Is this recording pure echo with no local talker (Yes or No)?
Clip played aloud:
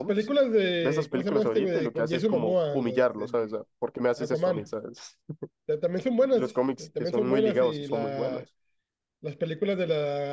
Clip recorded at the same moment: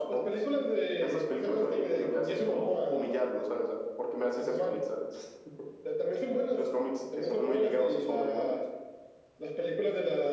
Yes